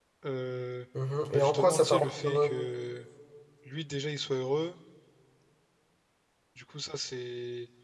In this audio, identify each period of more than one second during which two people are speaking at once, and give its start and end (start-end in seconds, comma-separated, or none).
1.3-2.6